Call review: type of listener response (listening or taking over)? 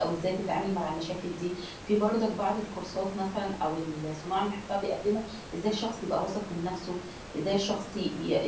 listening